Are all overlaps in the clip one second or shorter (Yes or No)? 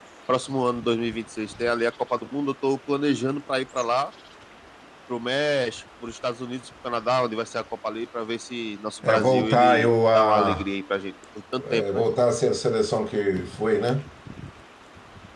No